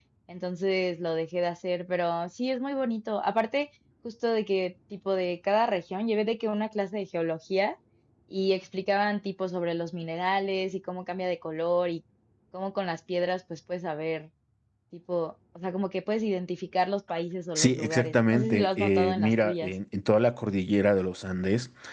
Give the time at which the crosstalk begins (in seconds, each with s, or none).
17.6 s